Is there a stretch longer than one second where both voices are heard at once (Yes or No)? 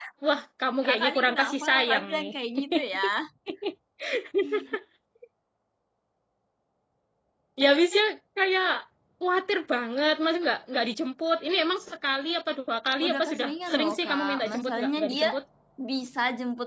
Yes